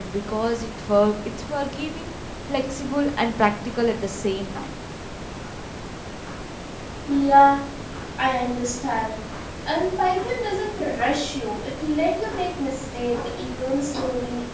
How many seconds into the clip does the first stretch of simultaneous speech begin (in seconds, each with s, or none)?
none